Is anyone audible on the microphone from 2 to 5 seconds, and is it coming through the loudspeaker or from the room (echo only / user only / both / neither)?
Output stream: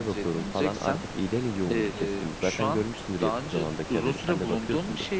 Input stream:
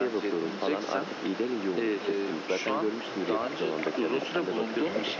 echo only